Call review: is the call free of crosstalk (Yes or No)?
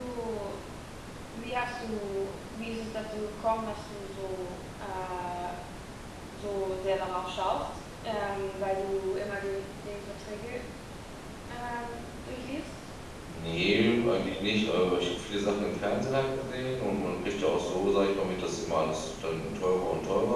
Yes